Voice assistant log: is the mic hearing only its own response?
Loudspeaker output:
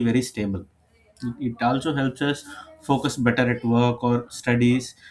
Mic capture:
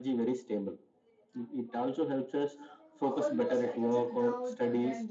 No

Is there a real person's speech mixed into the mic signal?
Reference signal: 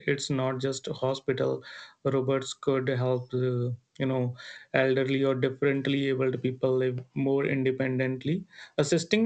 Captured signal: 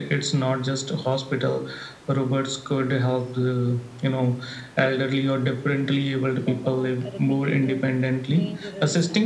Yes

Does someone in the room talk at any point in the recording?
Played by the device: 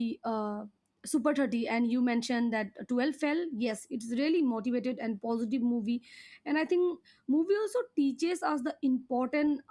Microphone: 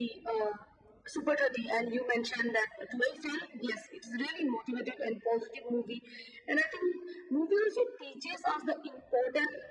No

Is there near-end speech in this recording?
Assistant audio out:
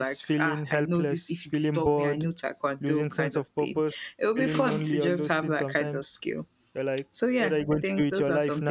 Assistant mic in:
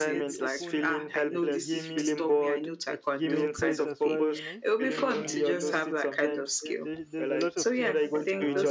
Yes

